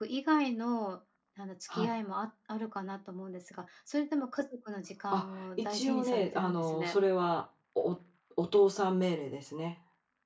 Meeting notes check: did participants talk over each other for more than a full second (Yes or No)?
Yes